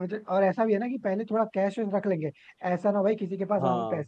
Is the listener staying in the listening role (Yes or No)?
Yes